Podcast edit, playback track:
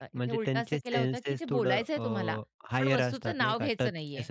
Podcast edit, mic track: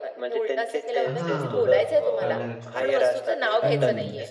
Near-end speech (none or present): present